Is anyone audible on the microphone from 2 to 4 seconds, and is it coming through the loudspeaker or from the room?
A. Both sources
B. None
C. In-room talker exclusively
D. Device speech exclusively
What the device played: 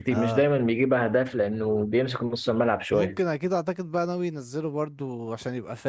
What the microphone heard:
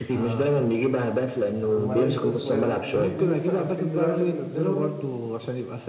A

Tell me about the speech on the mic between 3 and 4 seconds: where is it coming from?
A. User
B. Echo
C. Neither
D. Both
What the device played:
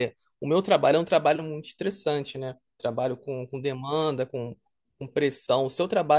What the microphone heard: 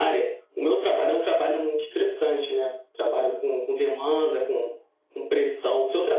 B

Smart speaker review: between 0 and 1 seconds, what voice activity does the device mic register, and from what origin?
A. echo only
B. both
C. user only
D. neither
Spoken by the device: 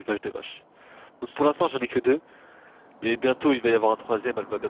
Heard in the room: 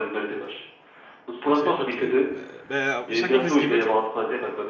A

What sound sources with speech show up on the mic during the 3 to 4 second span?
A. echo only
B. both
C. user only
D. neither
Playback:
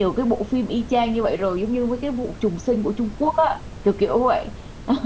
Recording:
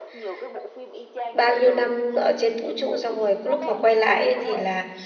B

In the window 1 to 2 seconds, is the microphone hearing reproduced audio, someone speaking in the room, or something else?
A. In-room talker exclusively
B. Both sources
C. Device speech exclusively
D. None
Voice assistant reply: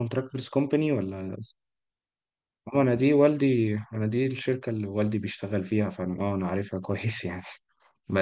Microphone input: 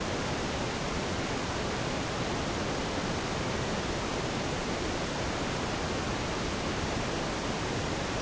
D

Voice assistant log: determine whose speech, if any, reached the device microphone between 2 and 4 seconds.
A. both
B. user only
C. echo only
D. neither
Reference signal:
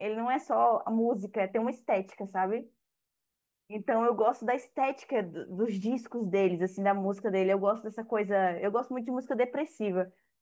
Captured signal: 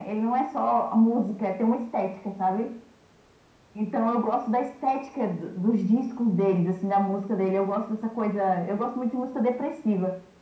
C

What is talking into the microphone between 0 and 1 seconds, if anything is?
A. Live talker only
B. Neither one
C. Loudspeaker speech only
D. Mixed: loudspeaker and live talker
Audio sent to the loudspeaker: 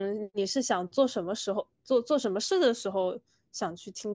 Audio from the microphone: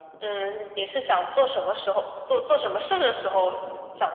C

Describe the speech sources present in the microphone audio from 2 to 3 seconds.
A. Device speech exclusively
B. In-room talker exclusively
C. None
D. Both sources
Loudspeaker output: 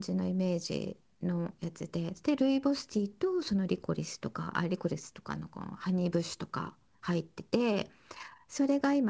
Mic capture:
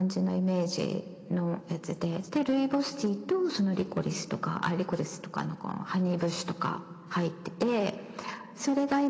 A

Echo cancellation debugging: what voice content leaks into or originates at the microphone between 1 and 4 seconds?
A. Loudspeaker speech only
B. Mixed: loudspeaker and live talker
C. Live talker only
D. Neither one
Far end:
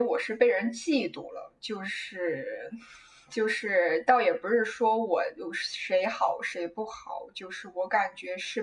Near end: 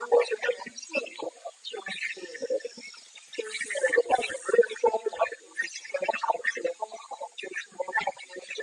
A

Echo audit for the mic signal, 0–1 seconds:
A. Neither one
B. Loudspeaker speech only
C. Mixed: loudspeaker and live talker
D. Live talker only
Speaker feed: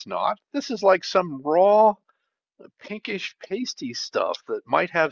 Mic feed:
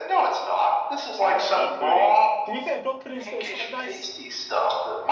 B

